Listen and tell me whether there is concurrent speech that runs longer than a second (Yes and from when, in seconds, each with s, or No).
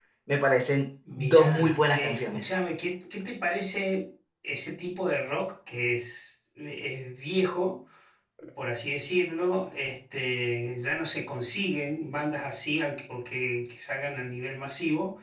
Yes, from 1.2 s